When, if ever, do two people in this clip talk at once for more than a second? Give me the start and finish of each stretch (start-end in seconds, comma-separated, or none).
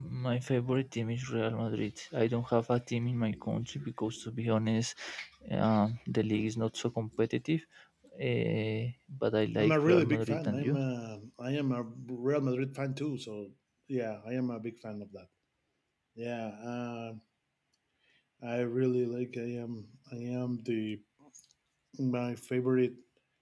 9.6-10.8